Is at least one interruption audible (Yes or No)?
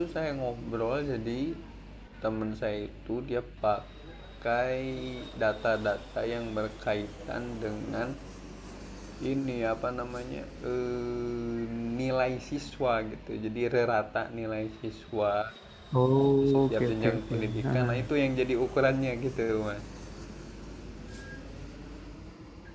Yes